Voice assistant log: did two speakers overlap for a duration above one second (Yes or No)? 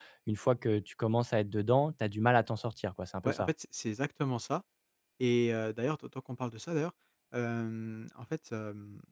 No